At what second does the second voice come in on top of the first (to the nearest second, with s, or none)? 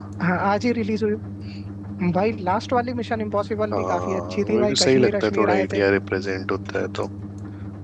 4 s